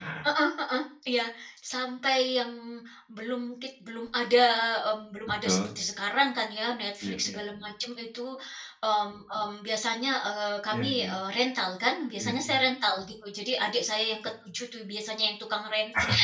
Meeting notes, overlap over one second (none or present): none